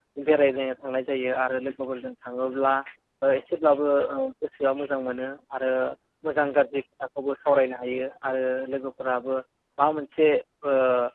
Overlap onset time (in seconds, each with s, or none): none